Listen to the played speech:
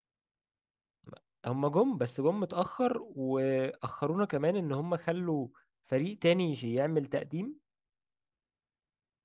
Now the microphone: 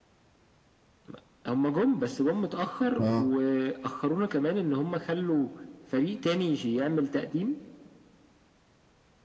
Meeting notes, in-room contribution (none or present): present